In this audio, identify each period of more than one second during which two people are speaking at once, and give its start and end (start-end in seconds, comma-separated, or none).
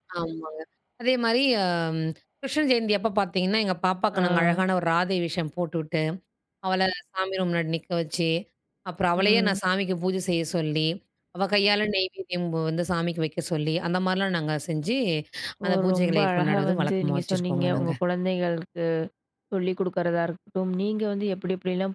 15.9-17.9